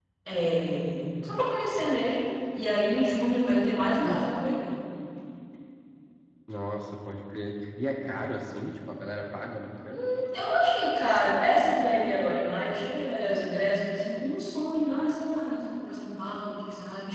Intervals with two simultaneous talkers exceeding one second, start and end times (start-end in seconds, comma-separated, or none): none